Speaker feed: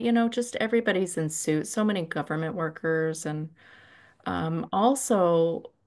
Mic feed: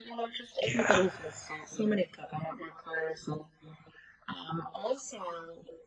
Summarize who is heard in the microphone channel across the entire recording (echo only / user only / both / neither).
both